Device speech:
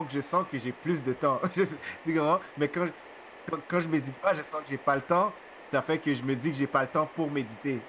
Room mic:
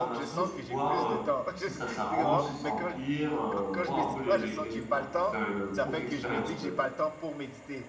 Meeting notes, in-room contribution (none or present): present